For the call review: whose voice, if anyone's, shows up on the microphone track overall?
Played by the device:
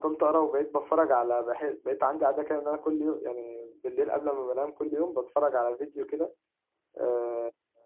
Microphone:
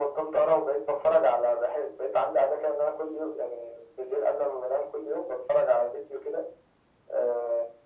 echo only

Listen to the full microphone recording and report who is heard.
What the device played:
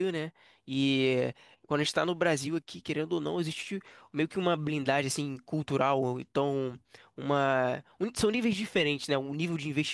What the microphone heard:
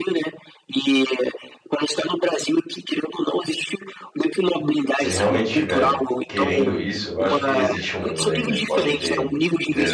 both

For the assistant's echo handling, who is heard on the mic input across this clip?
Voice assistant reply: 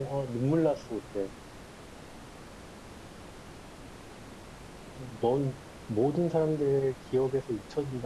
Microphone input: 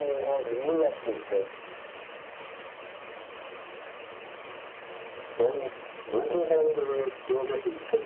echo only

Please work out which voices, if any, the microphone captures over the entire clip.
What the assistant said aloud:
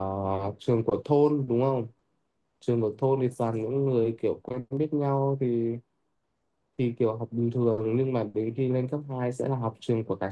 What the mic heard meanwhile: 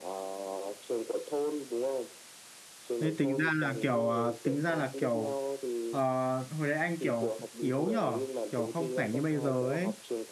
both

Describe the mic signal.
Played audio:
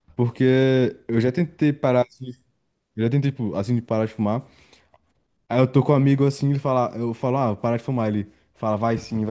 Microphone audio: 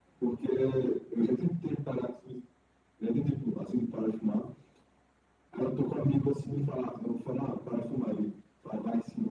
echo only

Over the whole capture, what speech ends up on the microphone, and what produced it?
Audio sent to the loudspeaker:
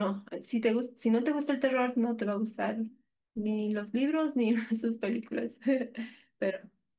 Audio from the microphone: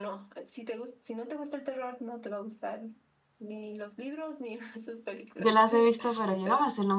both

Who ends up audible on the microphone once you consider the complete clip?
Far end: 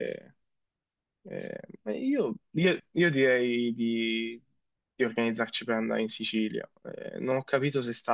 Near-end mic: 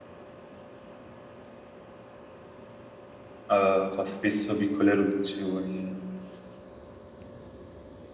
user only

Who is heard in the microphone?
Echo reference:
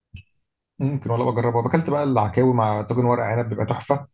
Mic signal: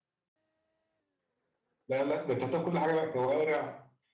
user only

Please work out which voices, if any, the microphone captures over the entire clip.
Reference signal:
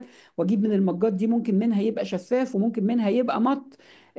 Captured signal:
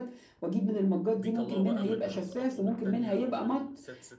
both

